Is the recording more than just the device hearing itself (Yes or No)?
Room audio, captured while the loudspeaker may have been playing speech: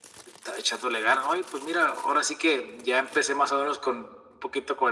No